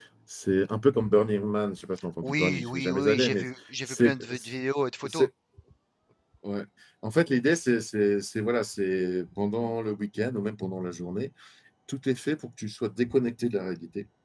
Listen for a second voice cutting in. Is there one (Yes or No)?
Yes